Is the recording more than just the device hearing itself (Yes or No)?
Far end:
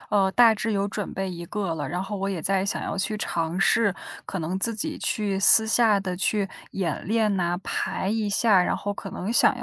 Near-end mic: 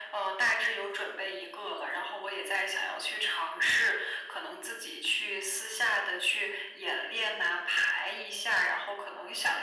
No